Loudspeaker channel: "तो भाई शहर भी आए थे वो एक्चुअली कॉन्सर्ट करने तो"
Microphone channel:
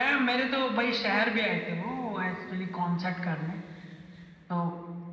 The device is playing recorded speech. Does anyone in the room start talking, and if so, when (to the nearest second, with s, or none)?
none